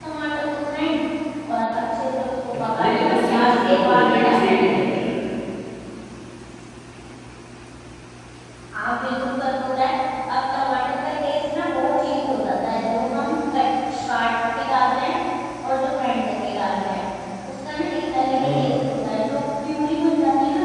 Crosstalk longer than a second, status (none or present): present